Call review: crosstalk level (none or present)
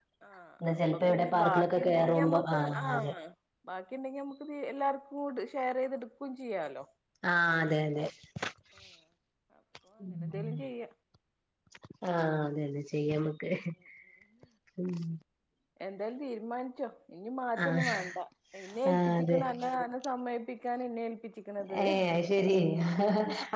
present